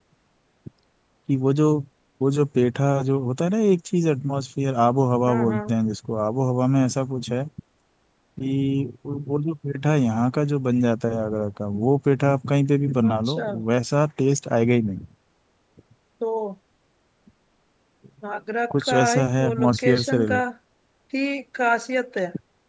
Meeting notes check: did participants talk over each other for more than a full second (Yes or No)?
Yes